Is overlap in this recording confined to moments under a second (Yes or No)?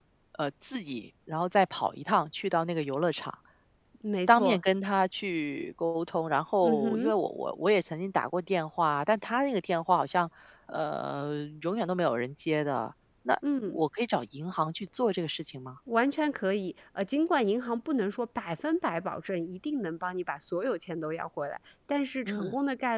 Yes